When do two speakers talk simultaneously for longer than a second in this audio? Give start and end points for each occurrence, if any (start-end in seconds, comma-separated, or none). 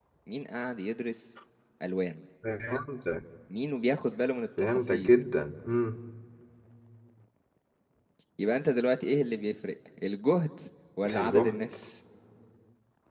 none